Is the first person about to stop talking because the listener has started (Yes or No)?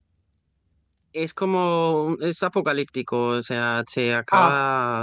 No